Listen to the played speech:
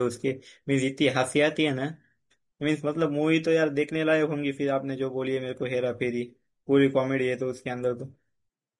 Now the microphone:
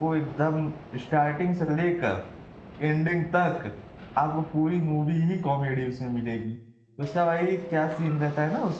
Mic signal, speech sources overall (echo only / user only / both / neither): user only